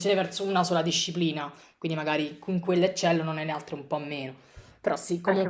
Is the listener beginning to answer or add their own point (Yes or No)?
Yes